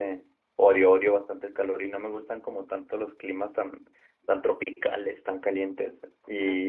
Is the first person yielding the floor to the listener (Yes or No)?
No